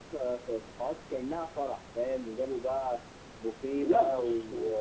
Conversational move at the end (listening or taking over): listening